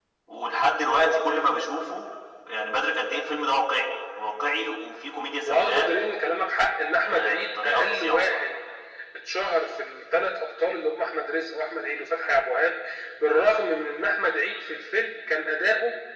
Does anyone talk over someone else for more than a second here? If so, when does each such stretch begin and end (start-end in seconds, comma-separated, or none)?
7.0-8.4